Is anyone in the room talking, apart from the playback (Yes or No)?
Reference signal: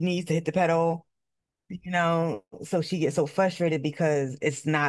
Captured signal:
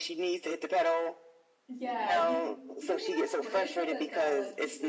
Yes